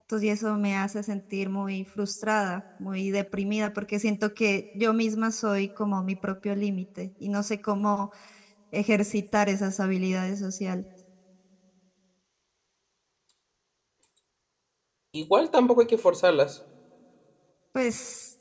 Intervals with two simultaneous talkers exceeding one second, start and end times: none

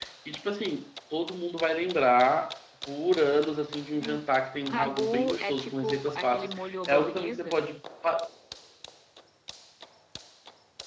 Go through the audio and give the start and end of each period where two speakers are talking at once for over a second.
4.6-7.6

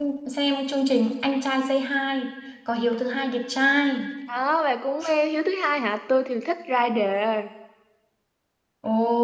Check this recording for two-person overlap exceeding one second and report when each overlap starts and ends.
none

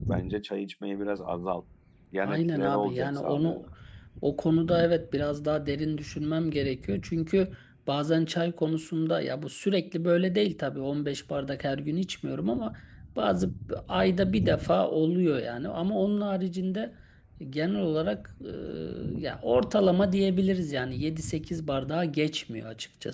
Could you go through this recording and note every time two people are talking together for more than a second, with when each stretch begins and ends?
2.2-3.6

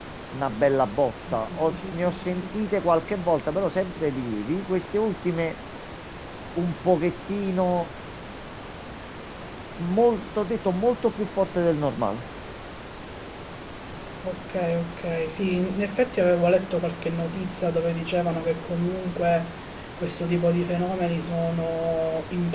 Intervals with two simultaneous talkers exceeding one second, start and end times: 1.3-2.6

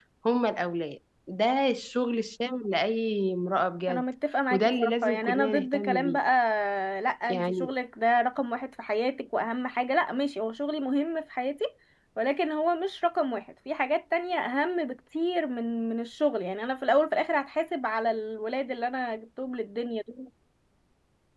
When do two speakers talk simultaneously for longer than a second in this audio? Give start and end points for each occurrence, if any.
4.5-6.2

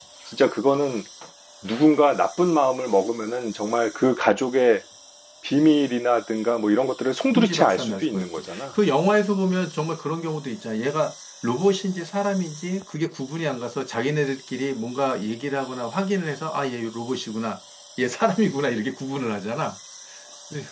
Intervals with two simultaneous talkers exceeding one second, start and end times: 7.3-8.6

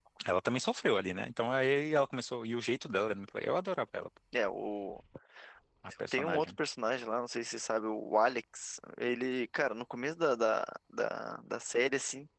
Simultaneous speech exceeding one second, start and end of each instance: none

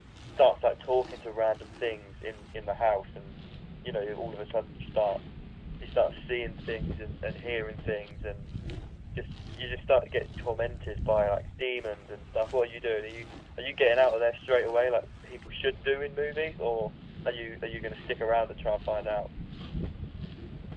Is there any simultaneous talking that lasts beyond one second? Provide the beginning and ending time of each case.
none

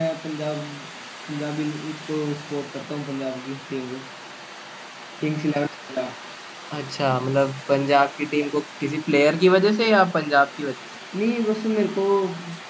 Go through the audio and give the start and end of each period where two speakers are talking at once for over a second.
none

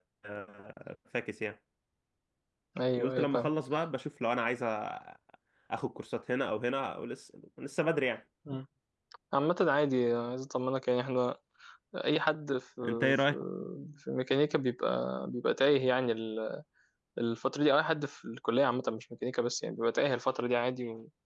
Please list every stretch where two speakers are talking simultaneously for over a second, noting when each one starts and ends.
none

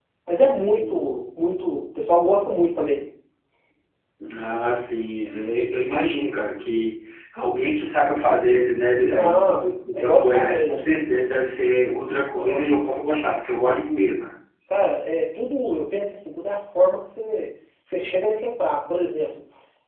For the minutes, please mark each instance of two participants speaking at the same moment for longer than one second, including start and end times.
9.2-10.8

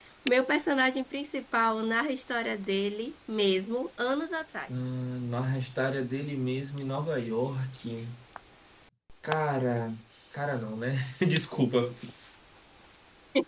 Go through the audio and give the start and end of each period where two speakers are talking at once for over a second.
none

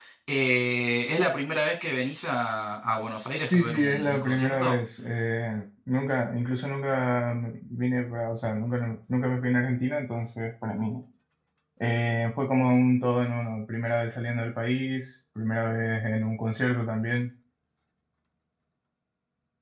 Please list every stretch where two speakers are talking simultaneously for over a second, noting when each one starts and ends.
3.5-4.8

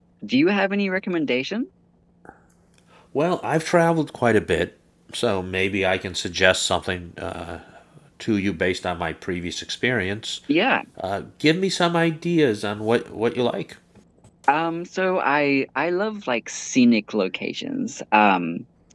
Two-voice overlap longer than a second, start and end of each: none

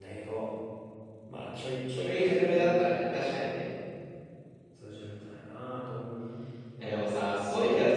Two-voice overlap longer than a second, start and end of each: 2.1-3.5

